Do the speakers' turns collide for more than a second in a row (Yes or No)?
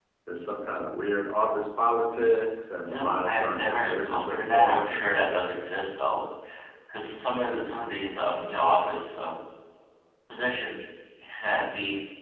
Yes